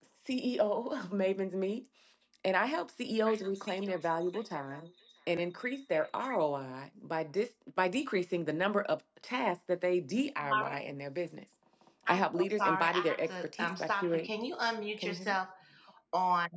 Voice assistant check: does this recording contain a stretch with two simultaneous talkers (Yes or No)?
Yes